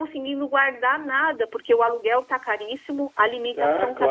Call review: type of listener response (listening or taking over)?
taking over